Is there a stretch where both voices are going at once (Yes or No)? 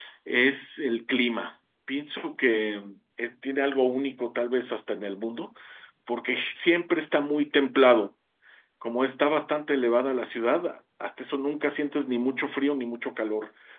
No